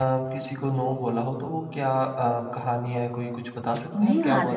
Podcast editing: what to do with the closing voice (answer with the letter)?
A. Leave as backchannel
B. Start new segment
B